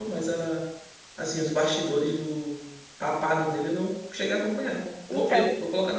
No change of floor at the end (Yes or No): No